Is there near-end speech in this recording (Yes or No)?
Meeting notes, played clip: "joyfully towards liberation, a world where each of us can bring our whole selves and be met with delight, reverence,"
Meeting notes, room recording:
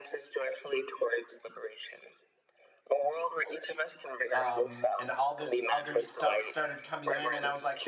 Yes